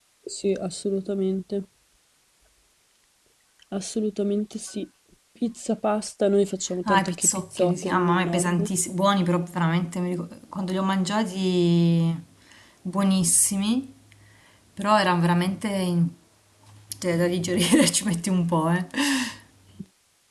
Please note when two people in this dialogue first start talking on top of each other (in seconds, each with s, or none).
6.8 s